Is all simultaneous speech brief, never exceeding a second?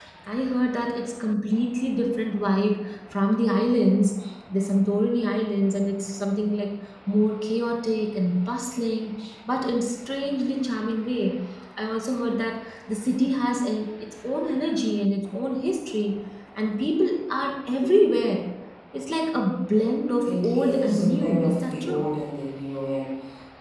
No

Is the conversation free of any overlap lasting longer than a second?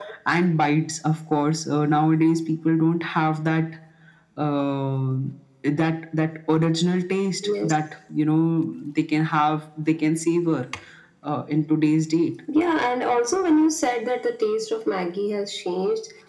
Yes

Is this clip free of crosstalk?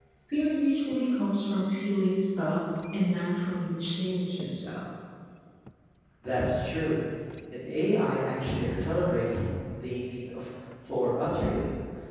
Yes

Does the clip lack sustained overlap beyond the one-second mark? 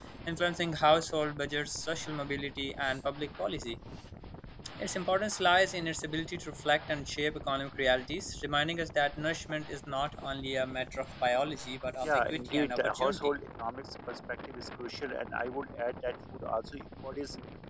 No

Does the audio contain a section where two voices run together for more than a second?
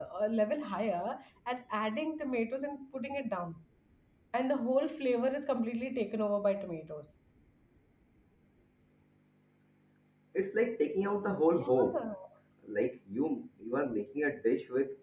No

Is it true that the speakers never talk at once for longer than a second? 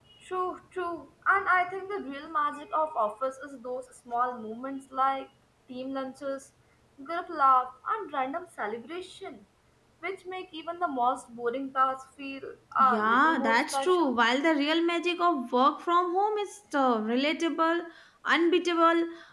No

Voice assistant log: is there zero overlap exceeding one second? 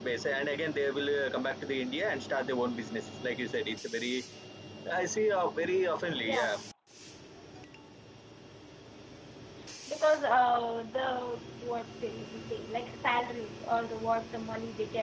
Yes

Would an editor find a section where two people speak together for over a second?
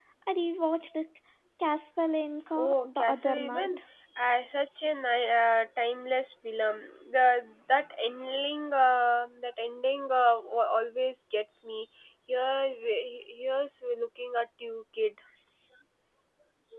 Yes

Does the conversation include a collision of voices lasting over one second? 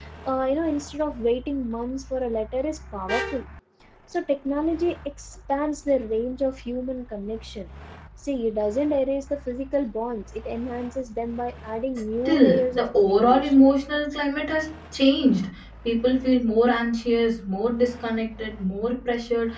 Yes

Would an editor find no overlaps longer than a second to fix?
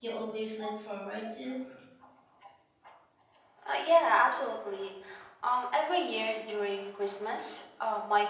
Yes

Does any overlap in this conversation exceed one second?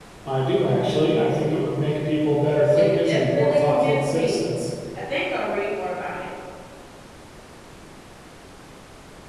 Yes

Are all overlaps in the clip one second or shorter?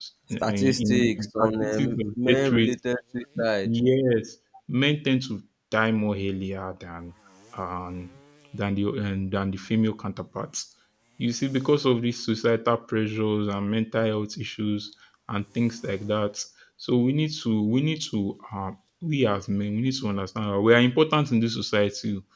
No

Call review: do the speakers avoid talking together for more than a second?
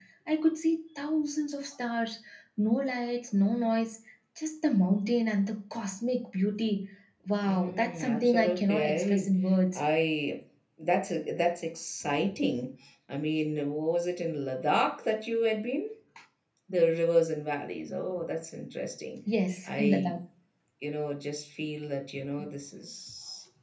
No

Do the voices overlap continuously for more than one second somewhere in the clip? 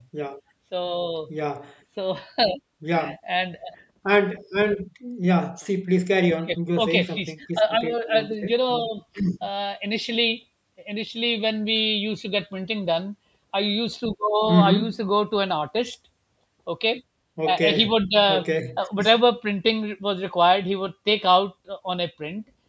Yes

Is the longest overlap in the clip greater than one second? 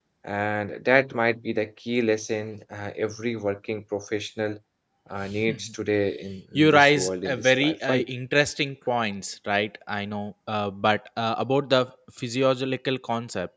Yes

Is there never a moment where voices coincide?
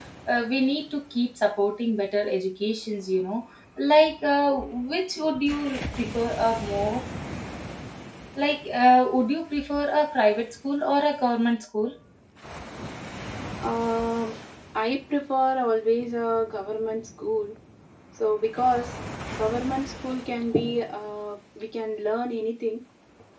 Yes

